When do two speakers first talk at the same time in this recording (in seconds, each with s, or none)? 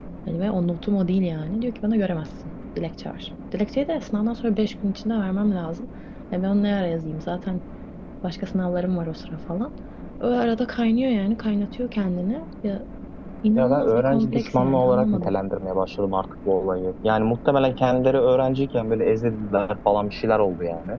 13.6 s